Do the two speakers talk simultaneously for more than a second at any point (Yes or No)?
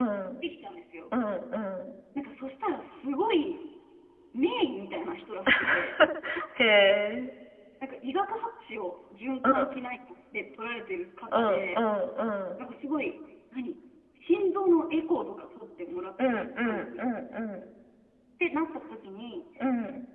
No